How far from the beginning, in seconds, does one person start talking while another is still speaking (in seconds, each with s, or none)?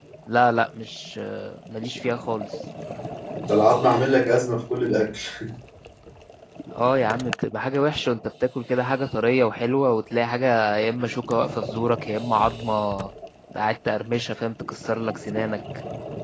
none